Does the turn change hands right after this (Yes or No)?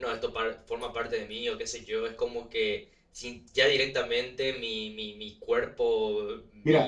Yes